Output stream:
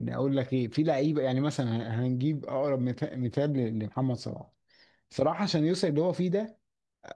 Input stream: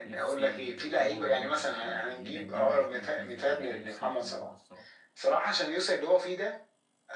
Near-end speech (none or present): present